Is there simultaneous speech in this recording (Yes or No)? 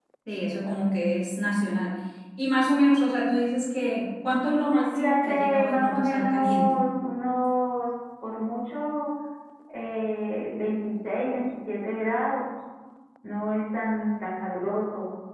Yes